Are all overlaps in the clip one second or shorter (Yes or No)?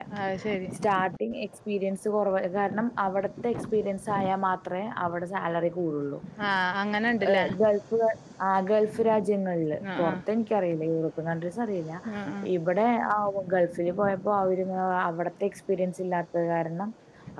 Yes